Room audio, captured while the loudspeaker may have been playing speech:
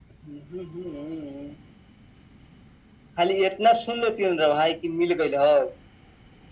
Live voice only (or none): none